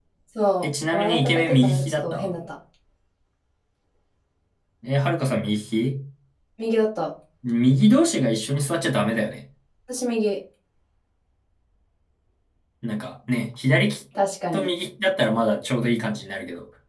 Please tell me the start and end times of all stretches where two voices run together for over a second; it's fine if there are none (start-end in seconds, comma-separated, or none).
0.6-2.4